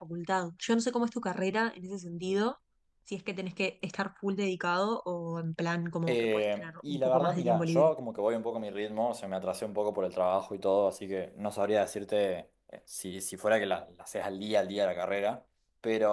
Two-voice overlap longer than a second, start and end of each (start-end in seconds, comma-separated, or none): 6.1-7.9